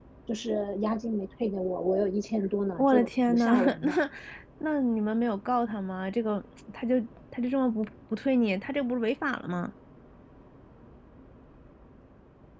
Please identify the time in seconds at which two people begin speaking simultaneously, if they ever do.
3 s

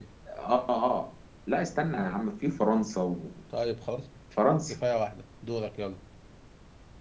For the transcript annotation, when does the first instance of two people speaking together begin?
none

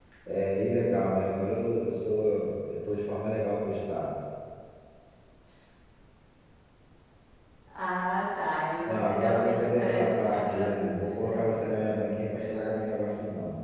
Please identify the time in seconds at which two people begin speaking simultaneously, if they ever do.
9 s

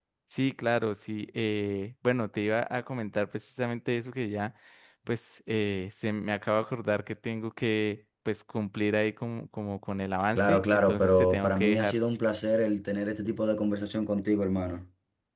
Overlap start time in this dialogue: 10 s

